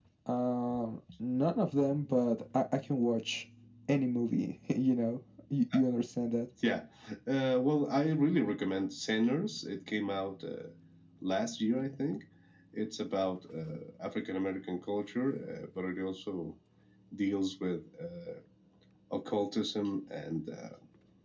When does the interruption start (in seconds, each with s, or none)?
none